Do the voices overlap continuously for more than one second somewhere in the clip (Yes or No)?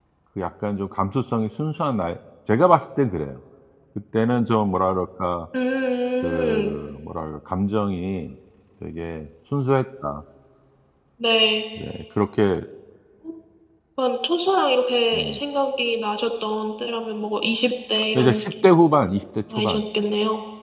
No